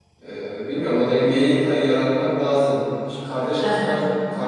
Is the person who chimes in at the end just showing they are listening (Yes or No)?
Yes